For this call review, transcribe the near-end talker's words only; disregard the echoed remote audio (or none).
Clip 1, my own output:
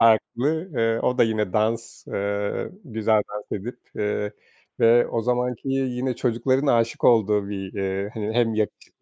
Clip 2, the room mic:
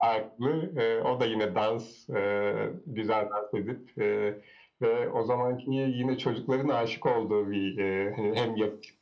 none